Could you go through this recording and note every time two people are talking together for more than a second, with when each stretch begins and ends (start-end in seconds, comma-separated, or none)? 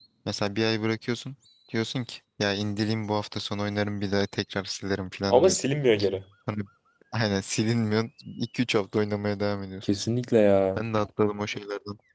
none